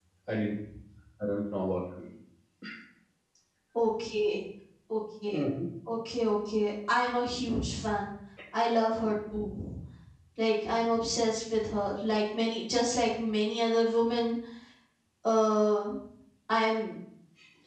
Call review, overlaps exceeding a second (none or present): none